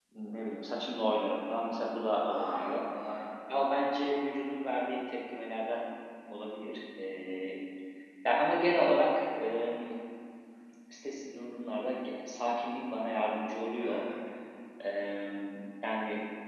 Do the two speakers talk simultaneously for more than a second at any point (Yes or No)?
No